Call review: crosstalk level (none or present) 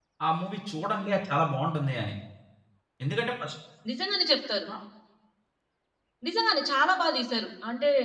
none